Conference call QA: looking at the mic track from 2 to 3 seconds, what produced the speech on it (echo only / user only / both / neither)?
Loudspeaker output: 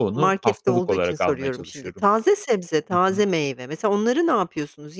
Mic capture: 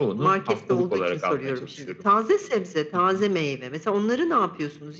echo only